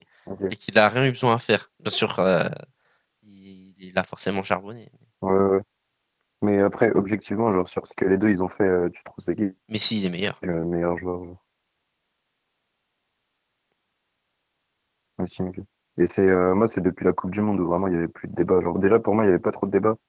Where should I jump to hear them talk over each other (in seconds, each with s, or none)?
none